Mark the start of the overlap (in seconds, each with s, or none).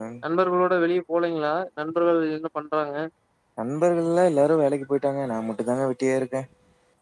none